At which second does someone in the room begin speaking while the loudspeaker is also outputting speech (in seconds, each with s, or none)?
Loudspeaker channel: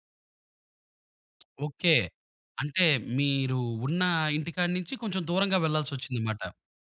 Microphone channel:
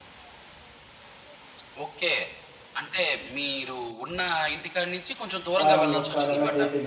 5.6 s